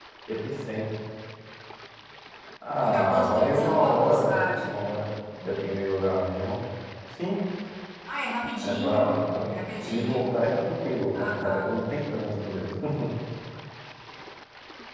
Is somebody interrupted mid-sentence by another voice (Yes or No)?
Yes